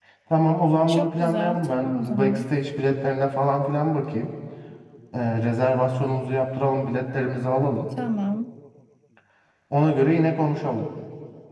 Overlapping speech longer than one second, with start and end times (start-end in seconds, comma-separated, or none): 0.9-2.4